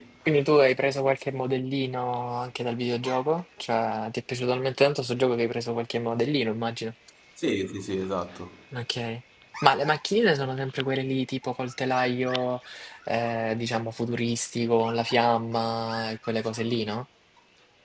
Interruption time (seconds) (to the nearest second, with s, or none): none